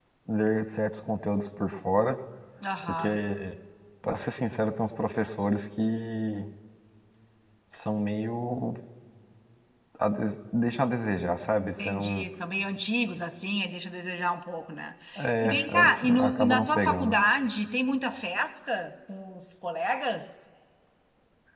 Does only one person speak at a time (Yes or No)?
No